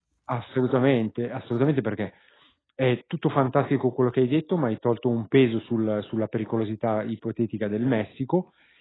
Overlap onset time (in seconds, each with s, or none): none